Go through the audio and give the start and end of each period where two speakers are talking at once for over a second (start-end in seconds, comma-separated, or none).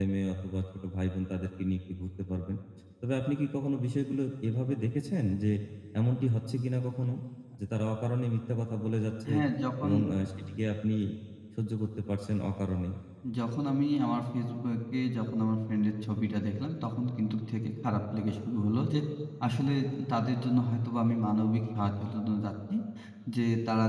none